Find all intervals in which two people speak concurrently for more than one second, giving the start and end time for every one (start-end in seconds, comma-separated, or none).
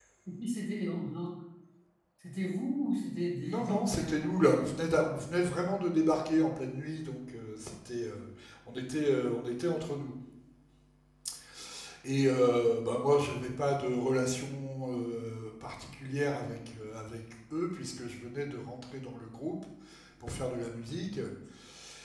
3.4-4.7